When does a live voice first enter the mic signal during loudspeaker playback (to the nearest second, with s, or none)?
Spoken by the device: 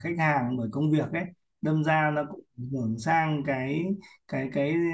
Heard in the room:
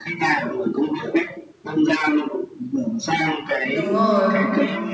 4 s